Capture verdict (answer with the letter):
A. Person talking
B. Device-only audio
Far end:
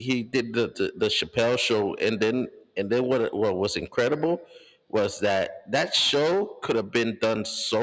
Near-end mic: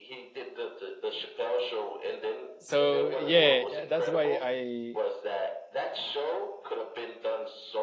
A